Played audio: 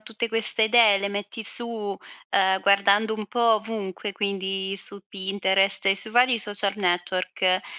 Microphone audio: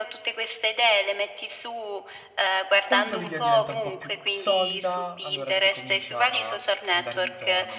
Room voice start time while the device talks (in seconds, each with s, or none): 2.8 s